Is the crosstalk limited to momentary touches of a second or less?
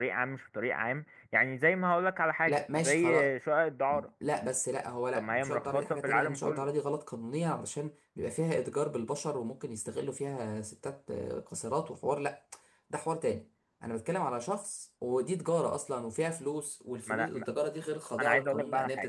No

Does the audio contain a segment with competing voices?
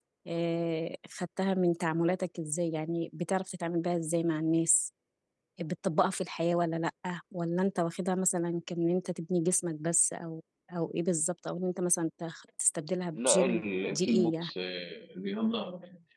Yes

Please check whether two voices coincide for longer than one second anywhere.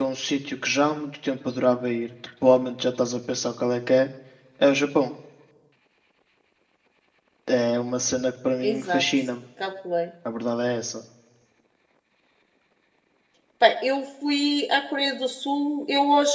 No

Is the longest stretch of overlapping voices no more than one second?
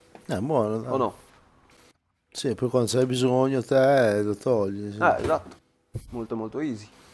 Yes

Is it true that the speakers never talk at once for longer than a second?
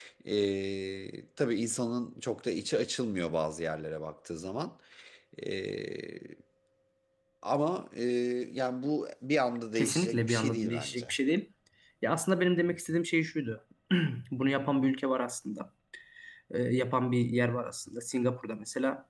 No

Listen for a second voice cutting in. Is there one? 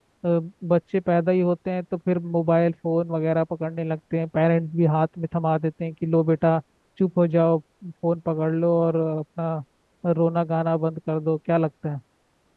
No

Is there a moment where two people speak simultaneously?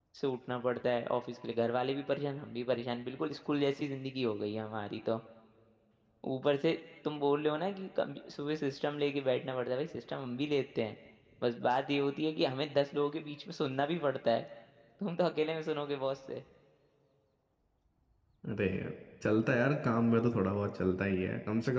No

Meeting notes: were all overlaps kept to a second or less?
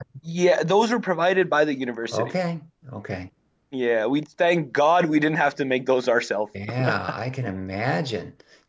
Yes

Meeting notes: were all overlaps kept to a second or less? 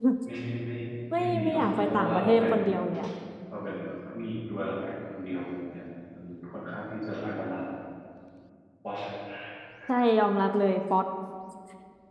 No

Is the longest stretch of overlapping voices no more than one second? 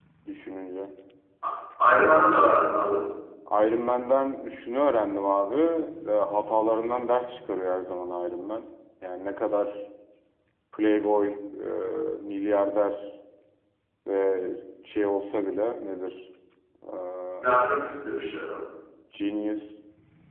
Yes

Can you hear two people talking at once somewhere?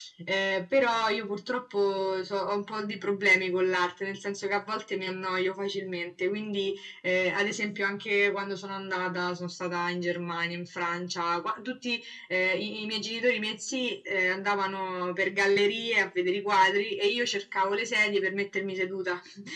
No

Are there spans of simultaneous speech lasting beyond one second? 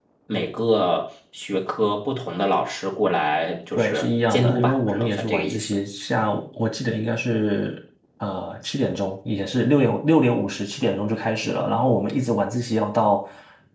Yes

